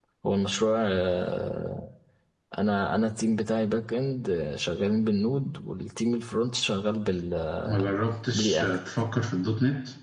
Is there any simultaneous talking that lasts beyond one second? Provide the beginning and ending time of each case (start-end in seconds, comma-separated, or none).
none